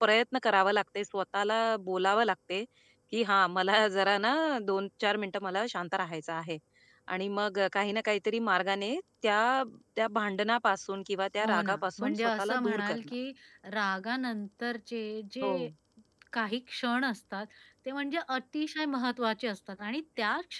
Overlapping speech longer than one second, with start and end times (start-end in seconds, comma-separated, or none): 11.4-13.0